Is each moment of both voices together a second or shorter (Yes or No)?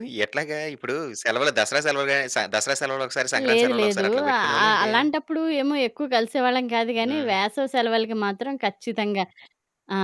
No